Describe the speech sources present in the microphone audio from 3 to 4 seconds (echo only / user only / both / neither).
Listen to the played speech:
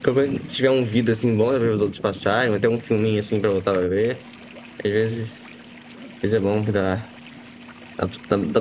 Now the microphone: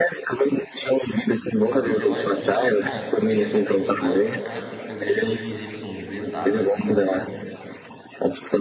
both